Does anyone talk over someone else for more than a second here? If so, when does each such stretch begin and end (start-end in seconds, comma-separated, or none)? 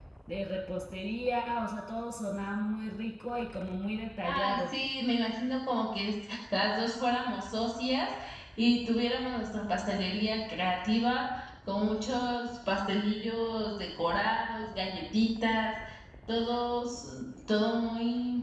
none